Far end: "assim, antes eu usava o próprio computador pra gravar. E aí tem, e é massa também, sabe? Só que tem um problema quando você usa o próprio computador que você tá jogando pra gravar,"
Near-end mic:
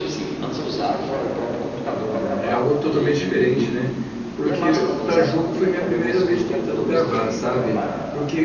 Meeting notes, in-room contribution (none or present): present